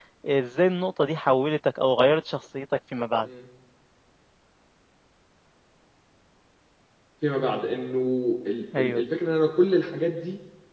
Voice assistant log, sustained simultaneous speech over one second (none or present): none